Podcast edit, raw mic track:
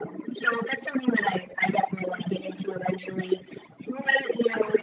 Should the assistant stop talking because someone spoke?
No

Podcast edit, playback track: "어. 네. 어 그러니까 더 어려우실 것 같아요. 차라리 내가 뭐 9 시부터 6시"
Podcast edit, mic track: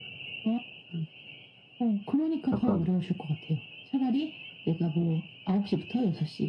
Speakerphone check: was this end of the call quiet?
No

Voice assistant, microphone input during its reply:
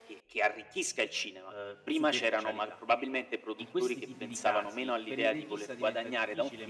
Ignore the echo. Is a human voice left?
Yes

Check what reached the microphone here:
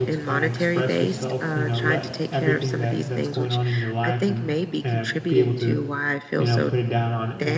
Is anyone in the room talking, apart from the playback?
Yes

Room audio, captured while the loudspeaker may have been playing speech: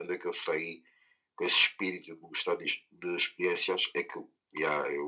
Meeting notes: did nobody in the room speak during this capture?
Yes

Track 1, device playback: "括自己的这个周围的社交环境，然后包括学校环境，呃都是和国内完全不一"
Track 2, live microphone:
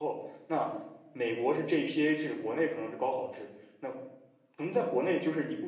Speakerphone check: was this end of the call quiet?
No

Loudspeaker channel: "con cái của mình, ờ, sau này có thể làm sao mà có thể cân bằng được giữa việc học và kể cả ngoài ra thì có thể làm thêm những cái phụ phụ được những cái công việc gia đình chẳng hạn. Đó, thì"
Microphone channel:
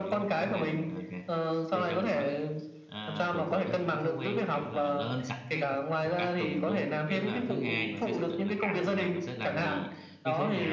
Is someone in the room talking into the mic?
Yes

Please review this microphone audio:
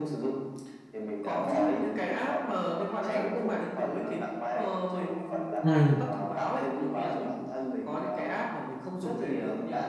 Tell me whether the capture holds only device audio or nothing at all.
No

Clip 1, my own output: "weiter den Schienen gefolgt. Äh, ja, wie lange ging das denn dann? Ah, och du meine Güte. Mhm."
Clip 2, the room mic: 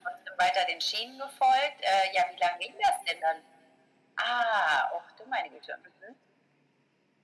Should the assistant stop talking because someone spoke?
No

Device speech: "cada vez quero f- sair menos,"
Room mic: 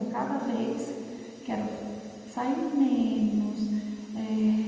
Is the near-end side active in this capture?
No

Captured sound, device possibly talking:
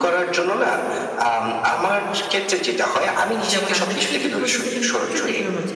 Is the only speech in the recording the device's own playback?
No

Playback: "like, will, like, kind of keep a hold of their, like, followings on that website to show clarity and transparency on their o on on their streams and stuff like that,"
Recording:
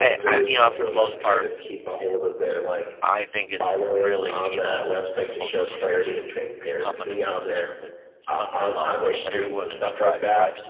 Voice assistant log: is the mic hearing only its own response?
No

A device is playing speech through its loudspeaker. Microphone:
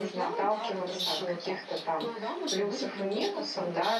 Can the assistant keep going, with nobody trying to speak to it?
No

